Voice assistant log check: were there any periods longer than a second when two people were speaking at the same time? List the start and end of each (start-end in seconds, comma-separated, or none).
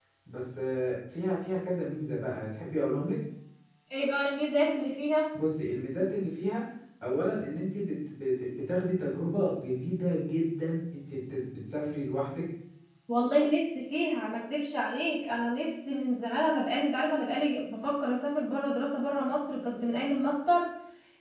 none